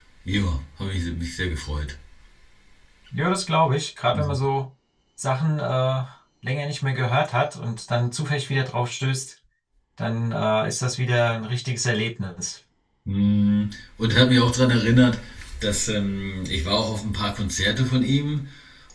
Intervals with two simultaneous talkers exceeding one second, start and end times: none

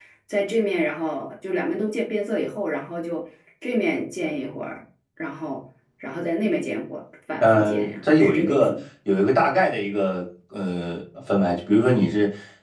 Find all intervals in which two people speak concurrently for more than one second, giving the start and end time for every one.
7.4-8.7

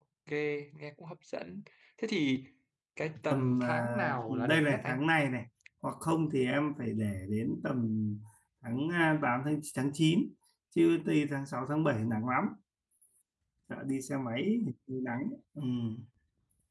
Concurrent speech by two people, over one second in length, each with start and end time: 3.3-5.0

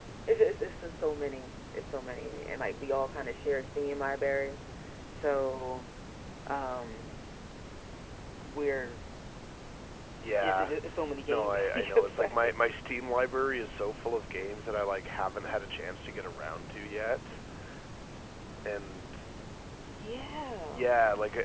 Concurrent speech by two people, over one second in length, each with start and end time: 11.3-12.5

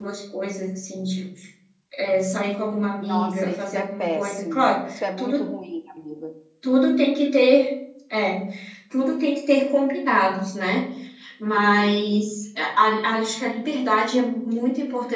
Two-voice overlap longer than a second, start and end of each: 3.0-5.4

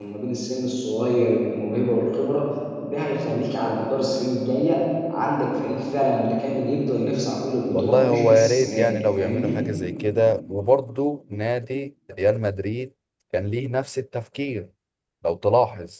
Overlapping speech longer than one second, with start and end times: 7.7-9.6

